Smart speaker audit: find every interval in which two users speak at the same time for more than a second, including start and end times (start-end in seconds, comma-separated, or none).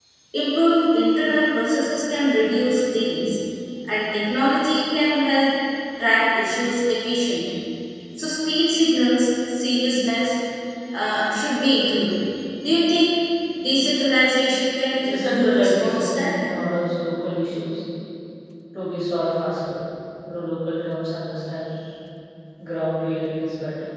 15.1-16.4